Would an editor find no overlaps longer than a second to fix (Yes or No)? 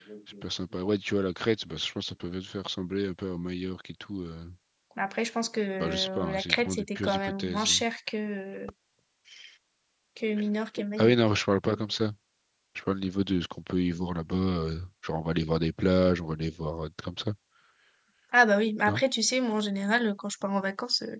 No